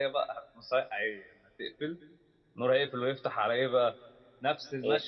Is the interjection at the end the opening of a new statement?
No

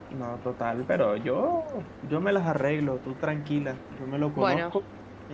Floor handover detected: No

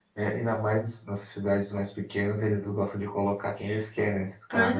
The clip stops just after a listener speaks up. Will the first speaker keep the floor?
No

